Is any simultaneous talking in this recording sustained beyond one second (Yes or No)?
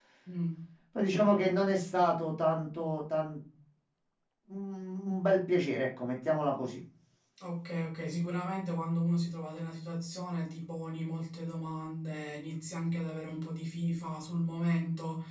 No